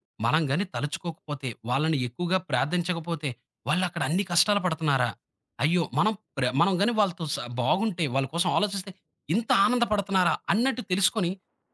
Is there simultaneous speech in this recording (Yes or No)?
No